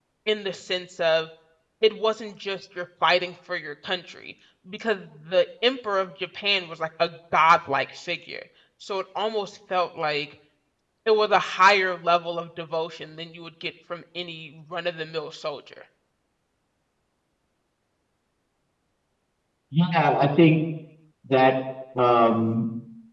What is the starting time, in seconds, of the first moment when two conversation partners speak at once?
none

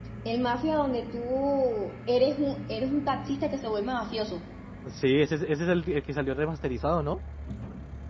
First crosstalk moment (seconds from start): none

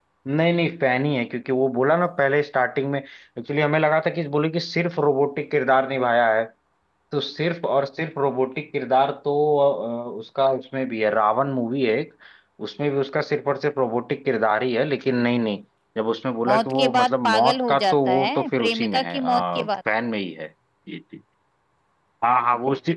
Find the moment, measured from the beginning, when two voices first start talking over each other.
16 s

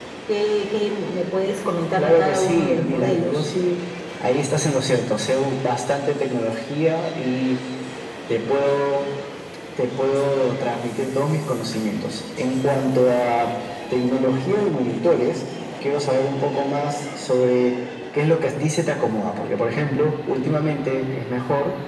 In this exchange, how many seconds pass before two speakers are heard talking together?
2 s

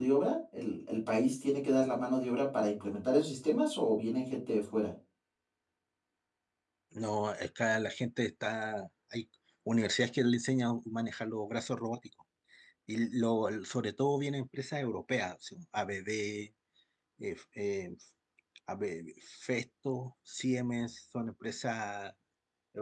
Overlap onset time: none

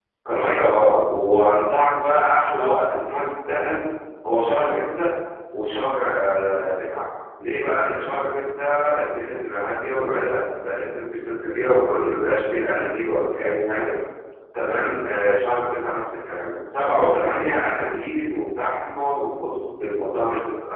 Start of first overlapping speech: none

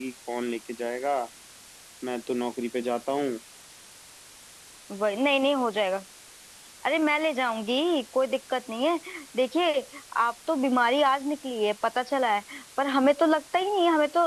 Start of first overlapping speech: none

